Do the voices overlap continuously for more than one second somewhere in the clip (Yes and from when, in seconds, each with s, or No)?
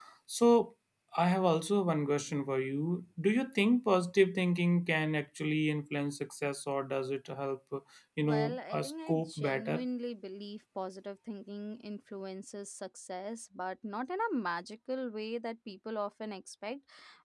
Yes, from 8.2 s